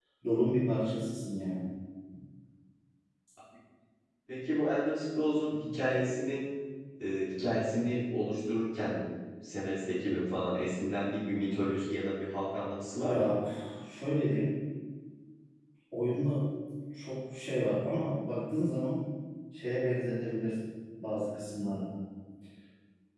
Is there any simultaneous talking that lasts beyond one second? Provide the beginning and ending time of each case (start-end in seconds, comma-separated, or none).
none